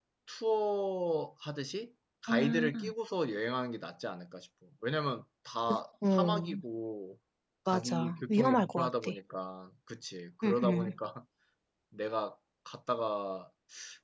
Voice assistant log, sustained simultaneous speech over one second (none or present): present